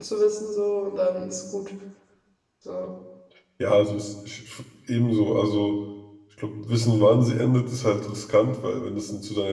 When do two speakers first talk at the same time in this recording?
none

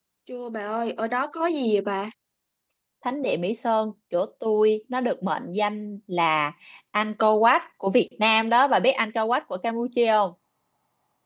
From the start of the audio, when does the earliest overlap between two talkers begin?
none

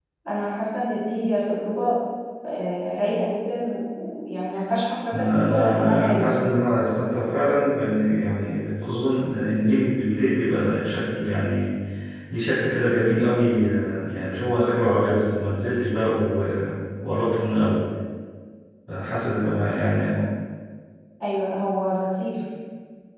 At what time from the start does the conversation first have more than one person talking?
5.1 s

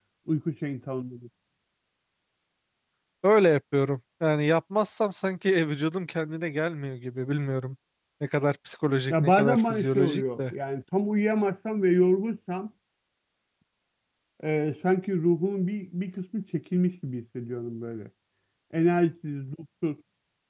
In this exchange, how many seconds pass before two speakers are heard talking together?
9.1 s

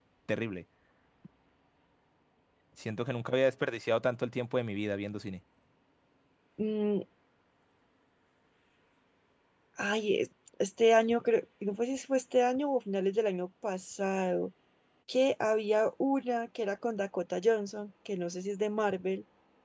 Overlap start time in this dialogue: none

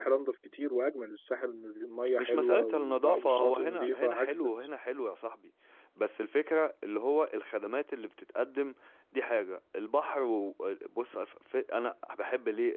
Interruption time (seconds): 2.2 s

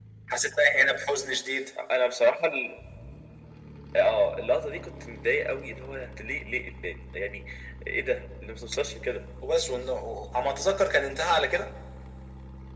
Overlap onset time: none

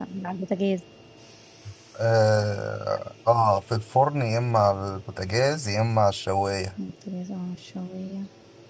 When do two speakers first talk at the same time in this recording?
none

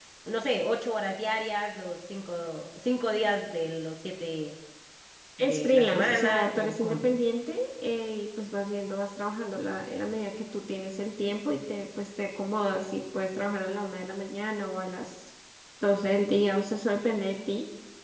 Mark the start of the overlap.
5.4 s

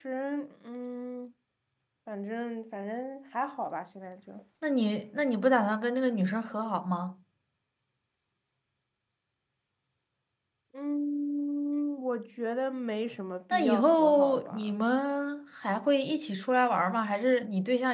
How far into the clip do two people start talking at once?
13.5 s

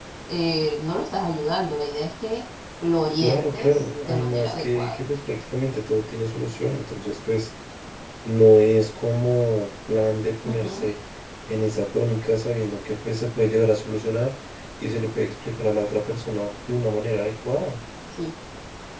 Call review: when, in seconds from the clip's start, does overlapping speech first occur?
3.2 s

